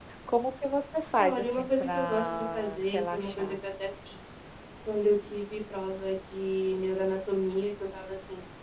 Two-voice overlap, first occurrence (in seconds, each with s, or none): 1.2 s